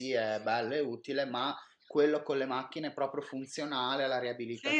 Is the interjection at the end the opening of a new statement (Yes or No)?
Yes